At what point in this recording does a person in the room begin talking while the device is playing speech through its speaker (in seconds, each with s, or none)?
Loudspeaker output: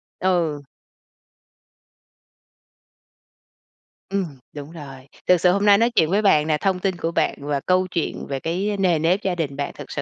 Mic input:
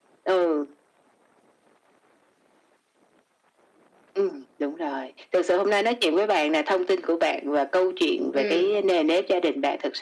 8.3 s